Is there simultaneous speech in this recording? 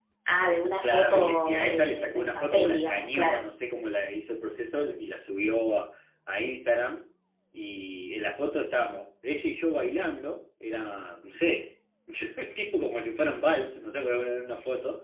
Yes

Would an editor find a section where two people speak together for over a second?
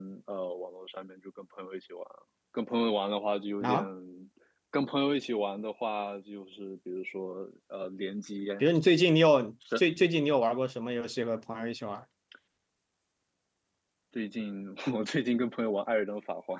No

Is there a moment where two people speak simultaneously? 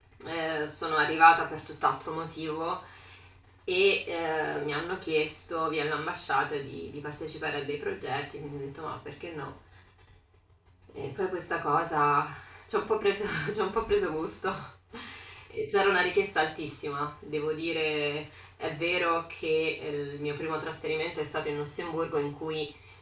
No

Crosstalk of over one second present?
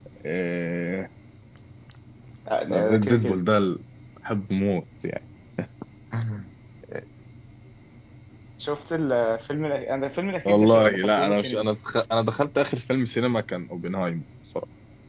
Yes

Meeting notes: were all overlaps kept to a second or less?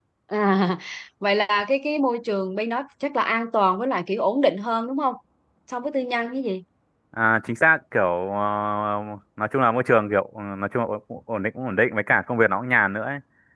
Yes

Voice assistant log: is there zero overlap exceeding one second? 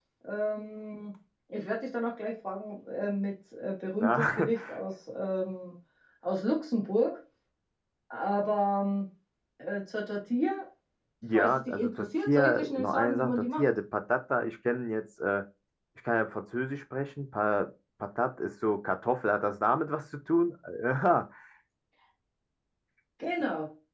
No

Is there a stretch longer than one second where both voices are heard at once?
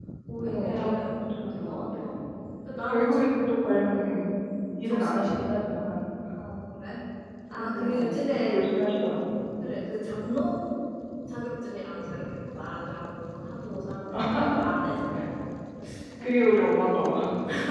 Yes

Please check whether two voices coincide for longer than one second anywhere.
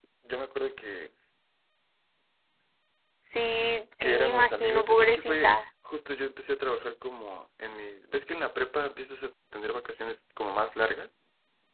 Yes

